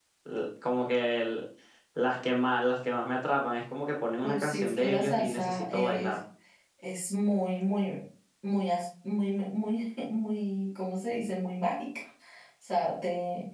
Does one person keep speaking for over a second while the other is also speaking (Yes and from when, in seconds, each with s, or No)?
Yes, from 4.2 s